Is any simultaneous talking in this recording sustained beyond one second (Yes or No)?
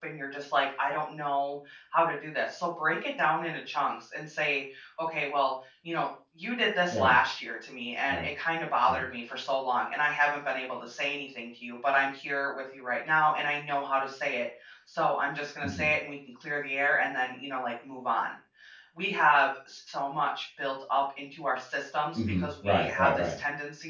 Yes